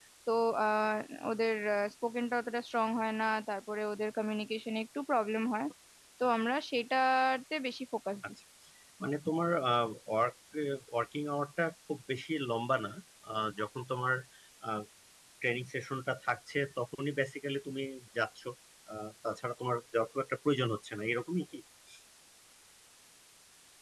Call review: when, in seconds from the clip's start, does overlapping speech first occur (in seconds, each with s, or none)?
none